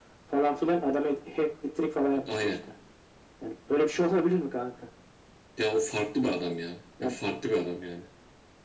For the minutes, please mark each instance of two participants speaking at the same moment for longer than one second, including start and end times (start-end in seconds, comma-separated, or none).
none